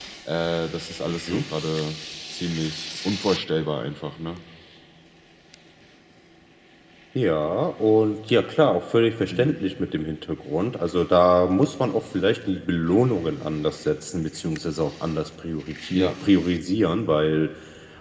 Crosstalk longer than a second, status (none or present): none